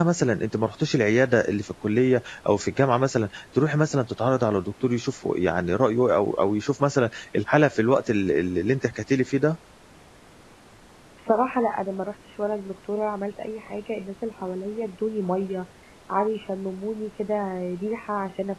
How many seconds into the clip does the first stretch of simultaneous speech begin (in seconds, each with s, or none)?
none